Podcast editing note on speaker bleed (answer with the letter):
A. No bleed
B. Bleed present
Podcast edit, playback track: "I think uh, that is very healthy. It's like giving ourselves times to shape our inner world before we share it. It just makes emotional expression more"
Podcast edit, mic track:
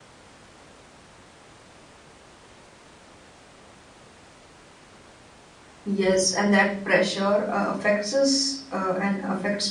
A